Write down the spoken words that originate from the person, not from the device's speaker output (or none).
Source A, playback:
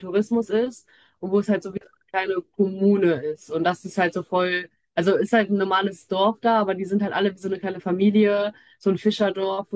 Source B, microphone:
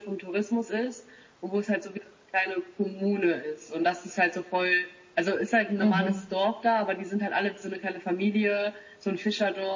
Mhm.